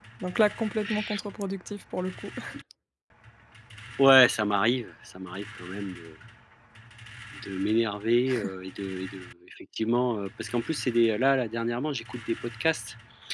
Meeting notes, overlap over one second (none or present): none